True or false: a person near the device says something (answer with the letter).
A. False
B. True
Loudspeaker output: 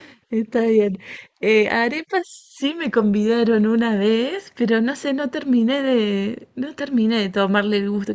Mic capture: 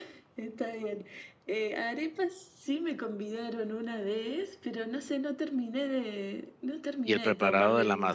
B